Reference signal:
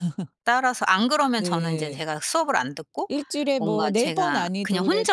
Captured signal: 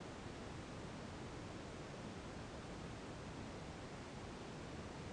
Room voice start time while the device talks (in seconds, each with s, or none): none